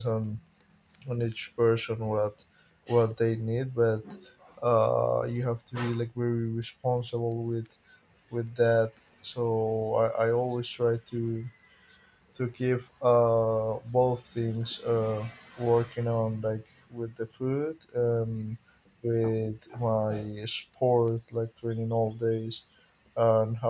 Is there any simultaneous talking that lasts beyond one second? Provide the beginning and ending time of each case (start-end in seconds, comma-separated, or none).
none